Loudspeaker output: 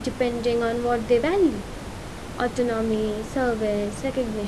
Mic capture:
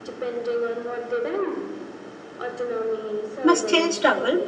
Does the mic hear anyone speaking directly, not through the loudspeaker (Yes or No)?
Yes